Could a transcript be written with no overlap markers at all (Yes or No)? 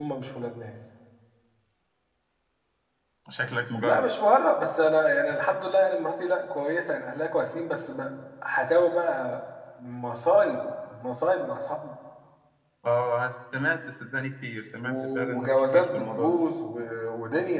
No